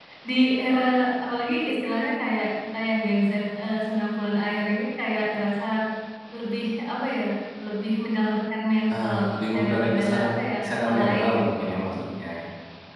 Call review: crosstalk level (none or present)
present